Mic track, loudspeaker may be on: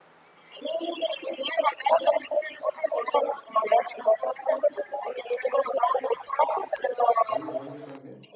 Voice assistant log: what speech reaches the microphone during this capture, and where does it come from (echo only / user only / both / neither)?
both